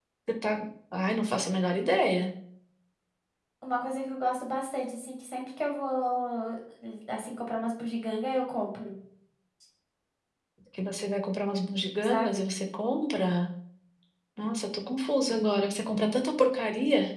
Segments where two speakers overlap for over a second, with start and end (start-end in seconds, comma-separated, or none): none